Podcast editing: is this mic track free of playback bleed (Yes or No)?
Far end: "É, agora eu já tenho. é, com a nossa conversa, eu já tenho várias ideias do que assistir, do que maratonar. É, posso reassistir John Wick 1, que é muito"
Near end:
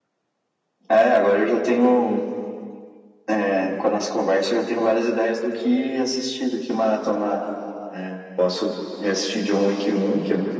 No